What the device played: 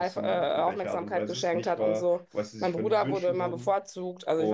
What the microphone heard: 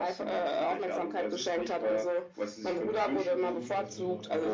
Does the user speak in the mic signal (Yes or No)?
Yes